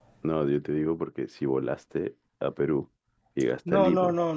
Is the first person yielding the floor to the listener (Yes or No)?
Yes